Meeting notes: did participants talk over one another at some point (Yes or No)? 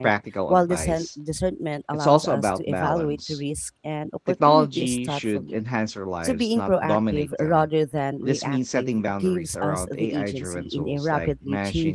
Yes